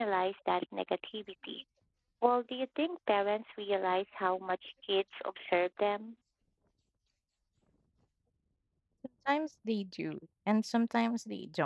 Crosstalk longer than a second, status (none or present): none